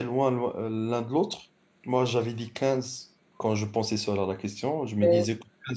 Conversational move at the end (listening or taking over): listening